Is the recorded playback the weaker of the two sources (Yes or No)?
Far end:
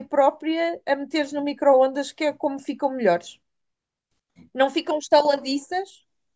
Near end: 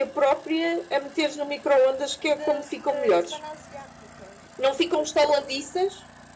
No